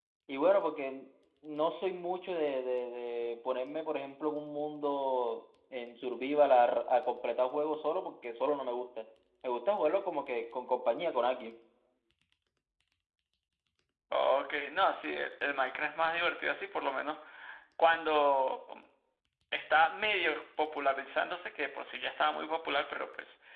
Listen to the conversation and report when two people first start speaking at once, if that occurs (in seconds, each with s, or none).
none